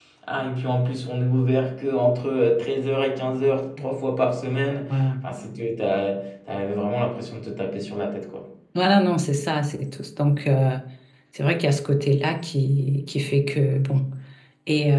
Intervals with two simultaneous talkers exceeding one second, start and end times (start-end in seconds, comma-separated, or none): none